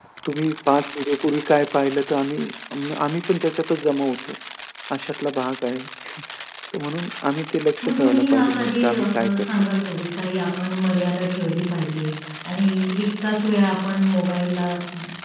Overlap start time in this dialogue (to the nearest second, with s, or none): 8 s